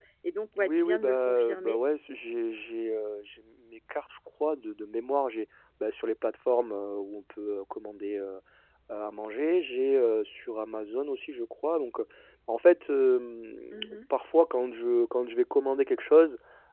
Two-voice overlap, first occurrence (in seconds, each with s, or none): 0.6 s